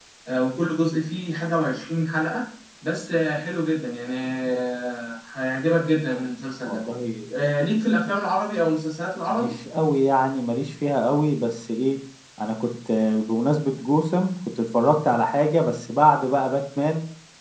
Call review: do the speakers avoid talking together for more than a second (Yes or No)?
Yes